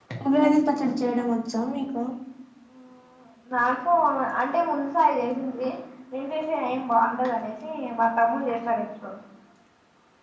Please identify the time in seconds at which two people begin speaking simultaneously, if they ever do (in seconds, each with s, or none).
none